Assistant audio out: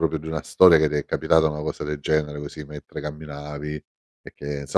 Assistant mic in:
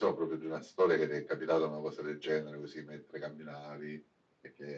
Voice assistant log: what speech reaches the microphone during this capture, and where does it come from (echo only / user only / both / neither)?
echo only